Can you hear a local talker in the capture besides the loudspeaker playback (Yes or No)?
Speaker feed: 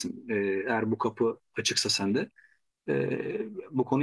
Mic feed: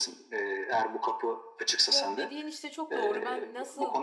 Yes